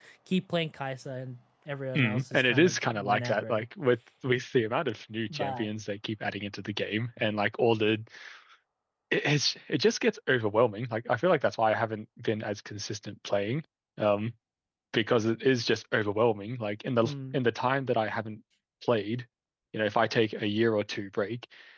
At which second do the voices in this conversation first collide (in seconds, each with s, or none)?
1.9 s